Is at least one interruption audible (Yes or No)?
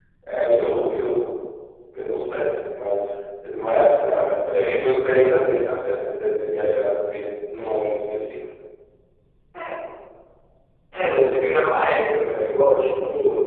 No